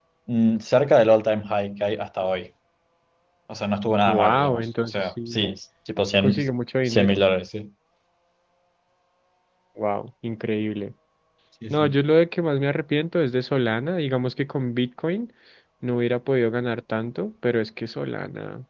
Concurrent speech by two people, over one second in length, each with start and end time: 4.0-5.4

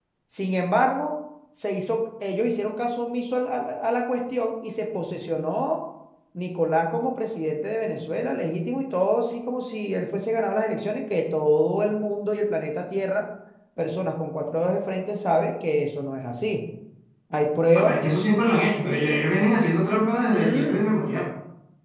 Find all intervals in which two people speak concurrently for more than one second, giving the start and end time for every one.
none

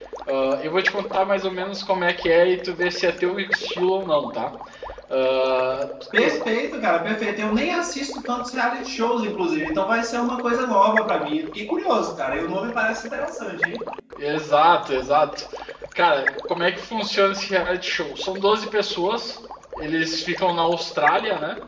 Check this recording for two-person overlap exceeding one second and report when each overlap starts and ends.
none

